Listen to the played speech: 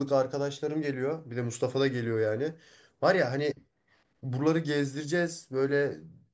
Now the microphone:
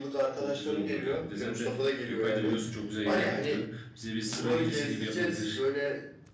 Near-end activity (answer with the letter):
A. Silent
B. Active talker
B